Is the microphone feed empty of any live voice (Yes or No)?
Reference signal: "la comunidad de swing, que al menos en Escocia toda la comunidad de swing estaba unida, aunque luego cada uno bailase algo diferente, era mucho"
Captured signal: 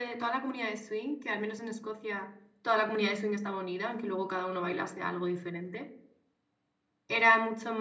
Yes